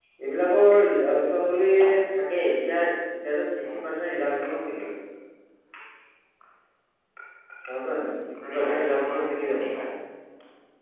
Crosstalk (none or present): present